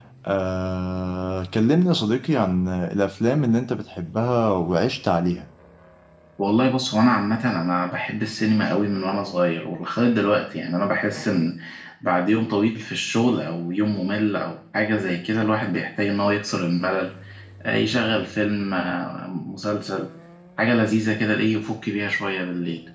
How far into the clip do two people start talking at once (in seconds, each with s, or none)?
none